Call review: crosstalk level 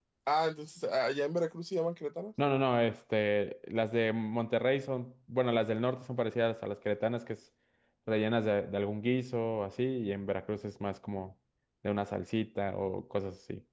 none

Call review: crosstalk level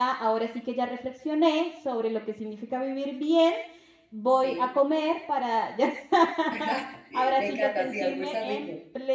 present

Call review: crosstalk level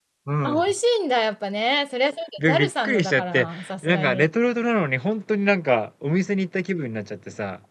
present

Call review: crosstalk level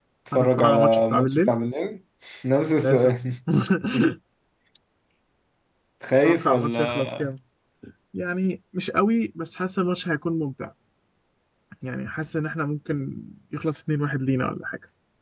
present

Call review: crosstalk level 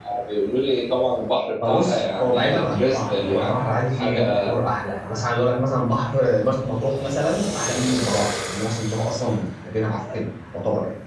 present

